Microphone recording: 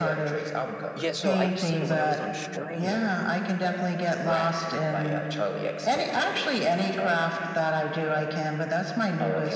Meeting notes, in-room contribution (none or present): present